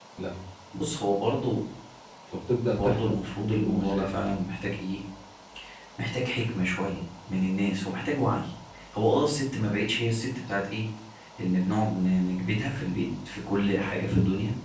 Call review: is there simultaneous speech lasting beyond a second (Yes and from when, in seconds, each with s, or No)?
Yes, from 2.7 s